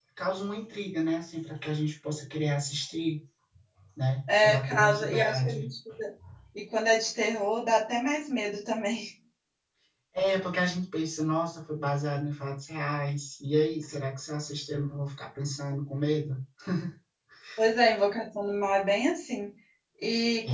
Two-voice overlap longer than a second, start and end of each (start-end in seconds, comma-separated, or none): 4.4-5.7